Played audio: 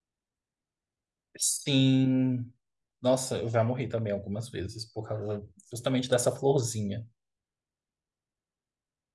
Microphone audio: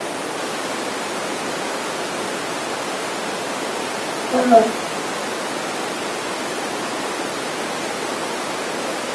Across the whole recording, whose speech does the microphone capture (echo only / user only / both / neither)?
user only